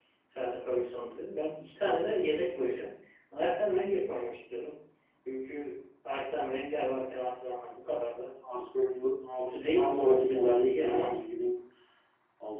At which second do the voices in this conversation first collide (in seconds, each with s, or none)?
9.4 s